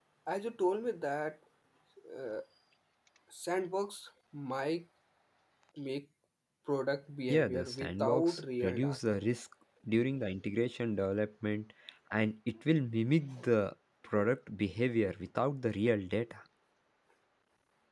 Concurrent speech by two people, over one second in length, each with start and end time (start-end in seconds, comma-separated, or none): 7.3-9.0